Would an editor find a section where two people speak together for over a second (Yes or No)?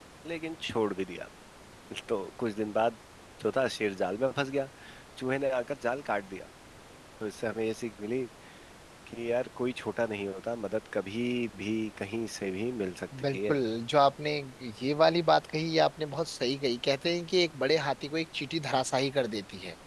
No